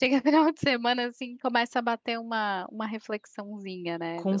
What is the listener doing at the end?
taking over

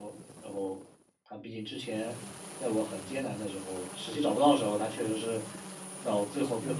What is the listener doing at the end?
listening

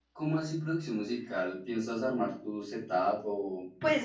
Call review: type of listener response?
taking over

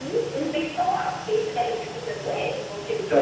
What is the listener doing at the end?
taking over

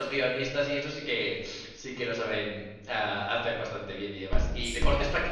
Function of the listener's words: listening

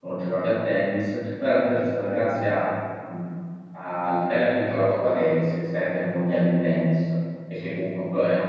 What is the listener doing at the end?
listening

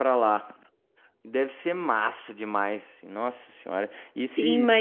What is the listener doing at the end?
taking over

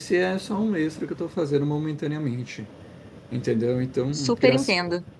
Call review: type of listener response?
listening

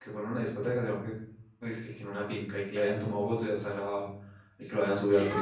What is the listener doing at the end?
taking over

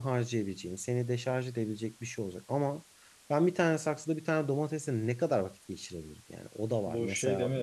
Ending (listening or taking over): taking over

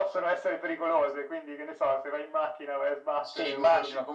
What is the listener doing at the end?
taking over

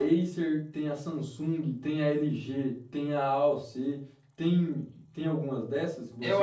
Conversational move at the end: taking over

